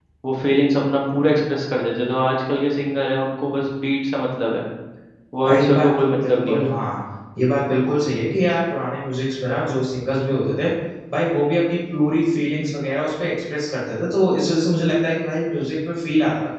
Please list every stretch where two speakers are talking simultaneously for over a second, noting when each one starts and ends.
5.5-6.7

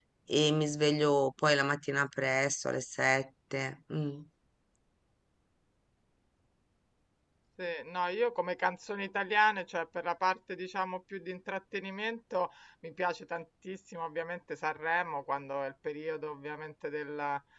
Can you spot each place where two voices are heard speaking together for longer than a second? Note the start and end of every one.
none

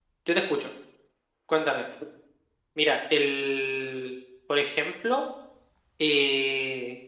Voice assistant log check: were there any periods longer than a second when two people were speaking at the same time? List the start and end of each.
none

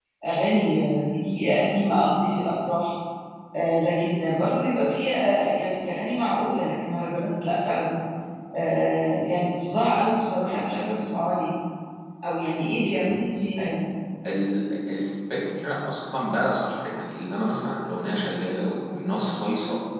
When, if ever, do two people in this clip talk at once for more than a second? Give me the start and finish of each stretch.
none

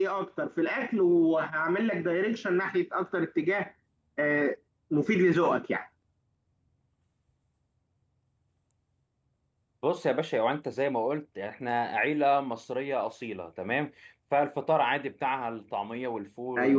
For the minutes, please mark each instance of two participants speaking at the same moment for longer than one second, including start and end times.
none

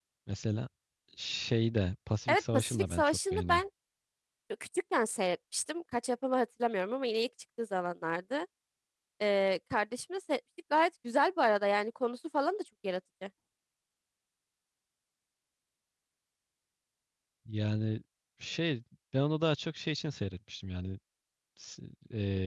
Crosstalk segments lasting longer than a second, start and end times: 2.3-3.6

